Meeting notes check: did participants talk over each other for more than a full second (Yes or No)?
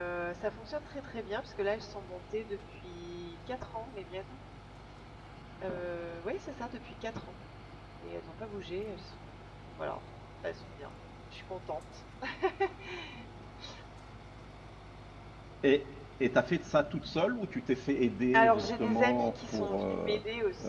Yes